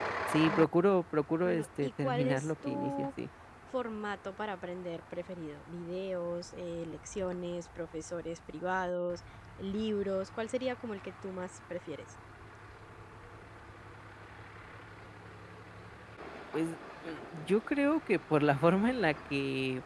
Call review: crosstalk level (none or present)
present